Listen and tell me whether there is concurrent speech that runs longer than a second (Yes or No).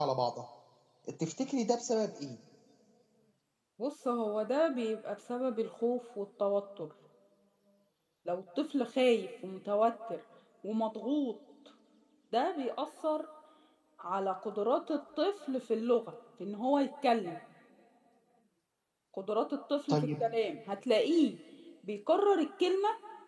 No